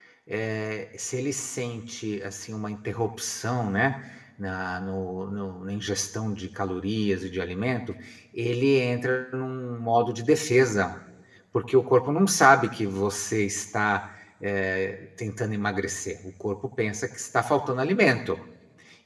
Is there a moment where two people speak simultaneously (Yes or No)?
No